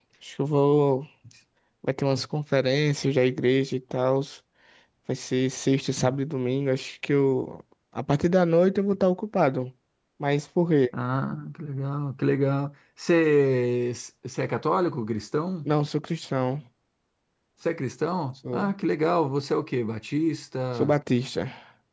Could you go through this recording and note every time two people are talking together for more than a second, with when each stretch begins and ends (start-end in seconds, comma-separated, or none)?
none